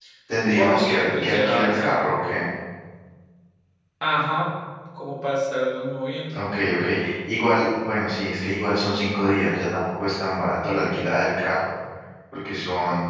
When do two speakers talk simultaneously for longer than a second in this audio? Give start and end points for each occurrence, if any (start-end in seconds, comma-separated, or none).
0.6-1.9